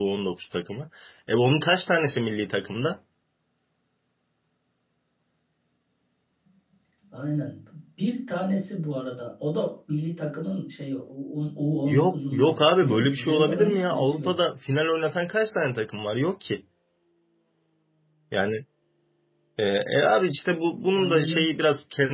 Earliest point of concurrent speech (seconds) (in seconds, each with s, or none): 11.9 s